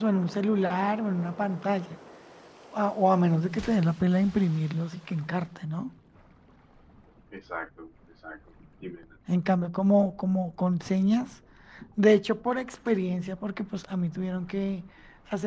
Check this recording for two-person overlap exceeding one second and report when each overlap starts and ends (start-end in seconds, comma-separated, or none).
none